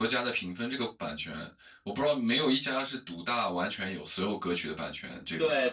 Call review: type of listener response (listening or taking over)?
taking over